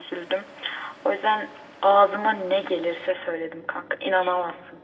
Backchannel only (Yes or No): No